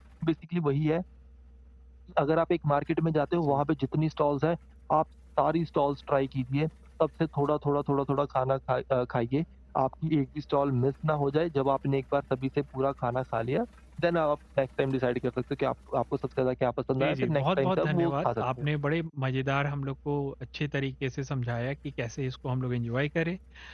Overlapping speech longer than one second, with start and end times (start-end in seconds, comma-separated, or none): 17.0-18.4